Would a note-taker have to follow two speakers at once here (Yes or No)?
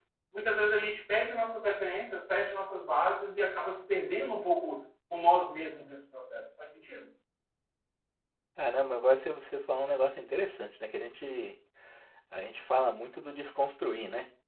No